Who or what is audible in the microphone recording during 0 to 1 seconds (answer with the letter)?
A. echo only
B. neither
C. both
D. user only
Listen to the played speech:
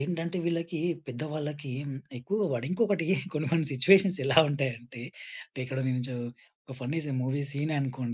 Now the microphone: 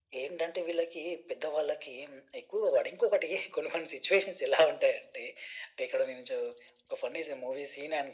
A